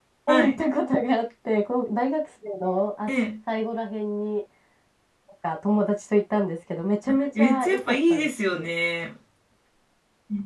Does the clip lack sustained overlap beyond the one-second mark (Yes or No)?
No